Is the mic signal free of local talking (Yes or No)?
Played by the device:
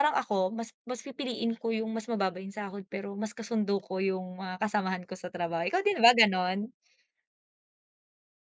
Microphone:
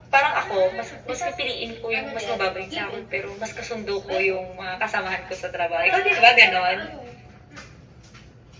No